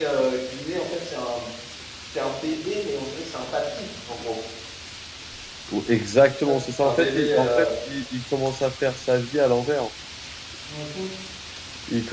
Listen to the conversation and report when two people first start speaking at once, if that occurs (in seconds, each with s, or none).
6.4 s